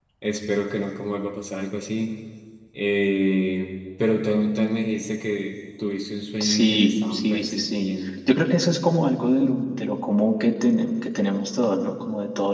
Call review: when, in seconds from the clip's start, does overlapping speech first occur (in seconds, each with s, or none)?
6.4 s